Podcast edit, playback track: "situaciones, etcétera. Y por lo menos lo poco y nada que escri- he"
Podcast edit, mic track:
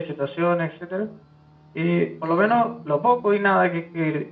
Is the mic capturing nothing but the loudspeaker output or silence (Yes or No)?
No